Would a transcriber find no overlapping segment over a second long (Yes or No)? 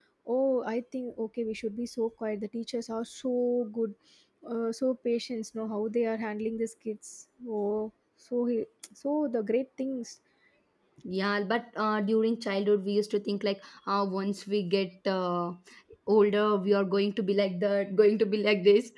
Yes